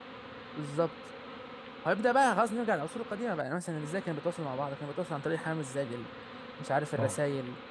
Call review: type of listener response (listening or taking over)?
listening